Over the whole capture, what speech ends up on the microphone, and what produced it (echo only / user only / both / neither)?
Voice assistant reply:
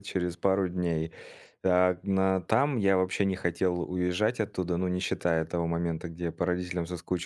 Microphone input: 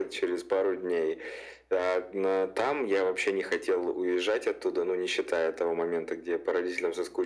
echo only